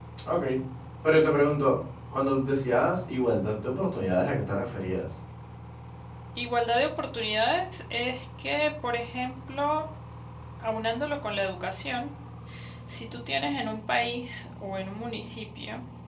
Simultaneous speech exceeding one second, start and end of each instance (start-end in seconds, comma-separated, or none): none